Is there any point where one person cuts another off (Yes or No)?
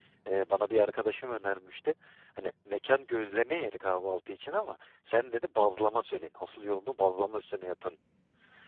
No